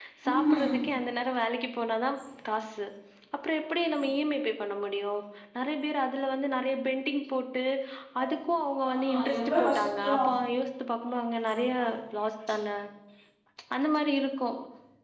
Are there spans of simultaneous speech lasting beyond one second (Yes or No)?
Yes